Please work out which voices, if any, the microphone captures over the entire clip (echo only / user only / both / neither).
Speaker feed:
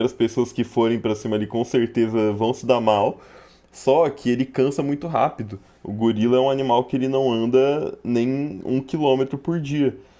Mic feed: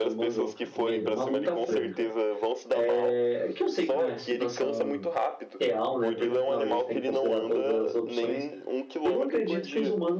both